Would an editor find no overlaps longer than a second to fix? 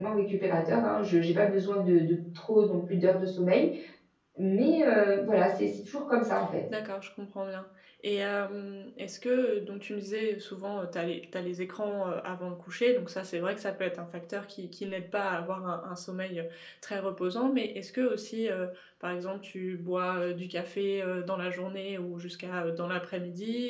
Yes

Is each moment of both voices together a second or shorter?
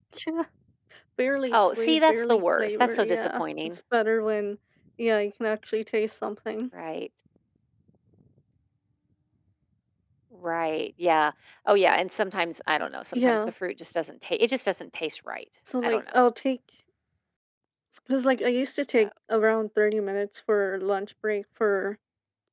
No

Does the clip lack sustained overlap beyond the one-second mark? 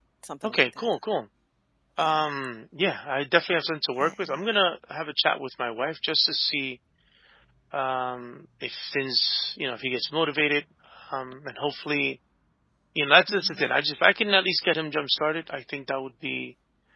Yes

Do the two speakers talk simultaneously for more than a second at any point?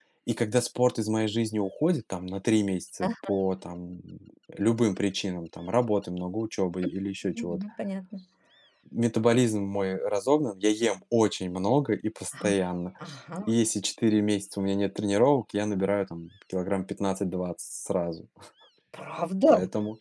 No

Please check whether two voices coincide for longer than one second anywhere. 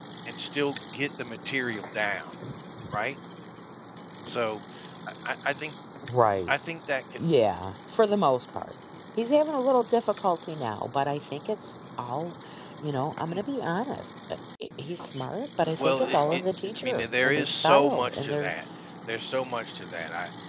Yes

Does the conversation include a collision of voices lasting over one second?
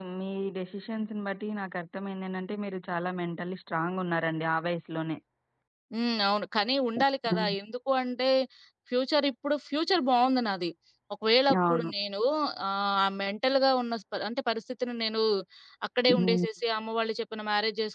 No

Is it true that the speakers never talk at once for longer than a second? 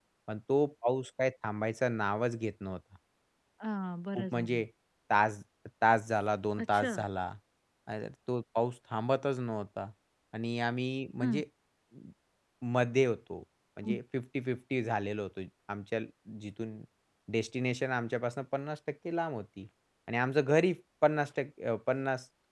Yes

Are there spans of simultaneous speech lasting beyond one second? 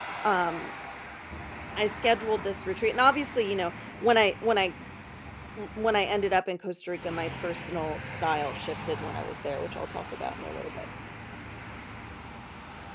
No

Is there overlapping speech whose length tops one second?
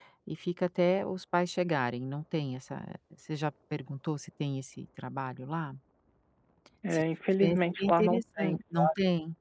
Yes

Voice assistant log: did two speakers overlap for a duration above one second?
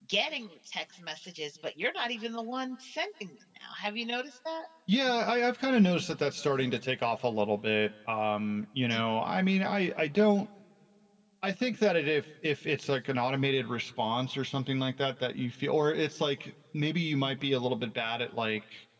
No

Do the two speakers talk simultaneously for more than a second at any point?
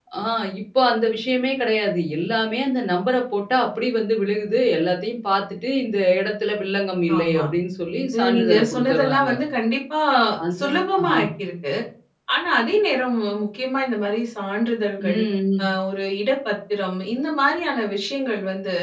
Yes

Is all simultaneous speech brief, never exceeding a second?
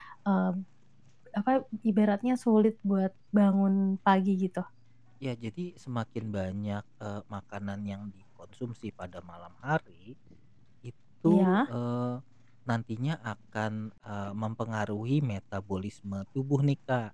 Yes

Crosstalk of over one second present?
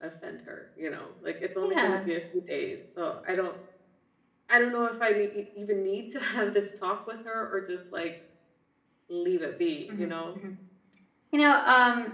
No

